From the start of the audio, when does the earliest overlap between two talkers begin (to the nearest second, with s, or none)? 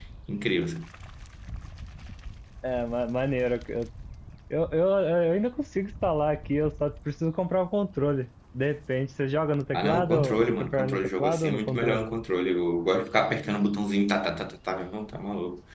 10 s